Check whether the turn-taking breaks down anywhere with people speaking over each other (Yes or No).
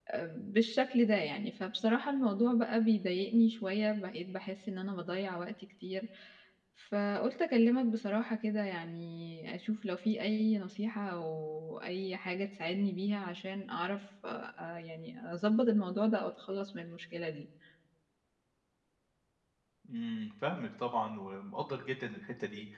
No